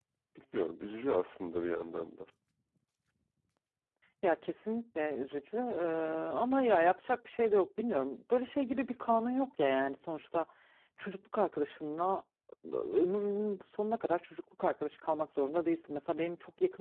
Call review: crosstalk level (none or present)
none